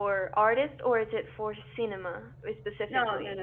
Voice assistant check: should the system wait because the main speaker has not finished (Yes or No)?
No